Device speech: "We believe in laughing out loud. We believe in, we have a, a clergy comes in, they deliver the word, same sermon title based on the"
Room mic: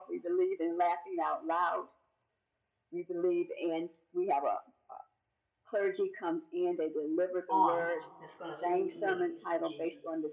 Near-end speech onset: 7 s

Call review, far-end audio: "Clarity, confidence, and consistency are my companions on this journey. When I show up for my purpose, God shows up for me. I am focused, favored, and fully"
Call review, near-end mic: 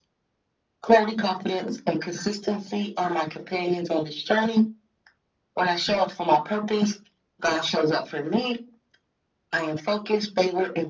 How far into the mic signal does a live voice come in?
none

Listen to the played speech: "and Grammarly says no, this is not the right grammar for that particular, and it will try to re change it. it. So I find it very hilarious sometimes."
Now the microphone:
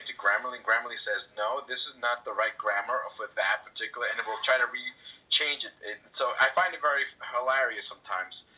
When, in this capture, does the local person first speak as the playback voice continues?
none

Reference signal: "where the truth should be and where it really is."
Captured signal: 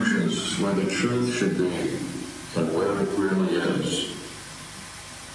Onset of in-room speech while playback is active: none

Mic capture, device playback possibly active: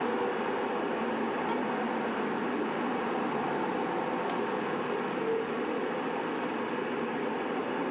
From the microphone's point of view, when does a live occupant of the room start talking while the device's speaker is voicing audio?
none

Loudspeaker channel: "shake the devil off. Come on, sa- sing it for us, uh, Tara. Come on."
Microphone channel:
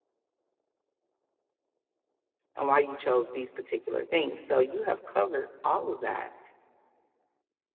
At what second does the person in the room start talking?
3 s

